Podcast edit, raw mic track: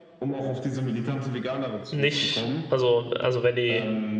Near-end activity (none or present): present